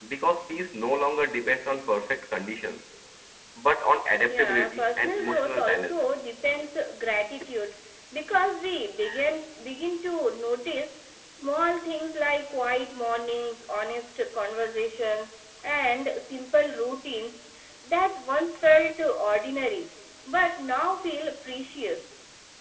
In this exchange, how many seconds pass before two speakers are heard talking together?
4.3 s

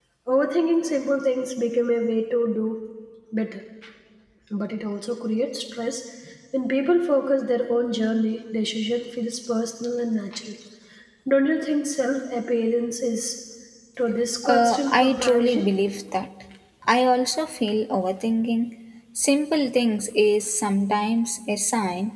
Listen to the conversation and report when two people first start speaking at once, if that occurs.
14.5 s

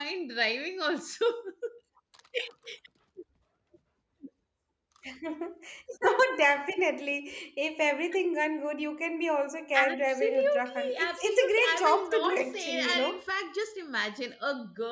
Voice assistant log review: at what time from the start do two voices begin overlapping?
9.7 s

